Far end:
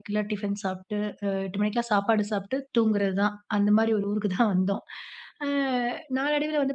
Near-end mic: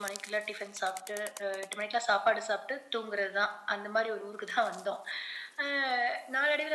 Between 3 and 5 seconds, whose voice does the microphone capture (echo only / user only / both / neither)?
echo only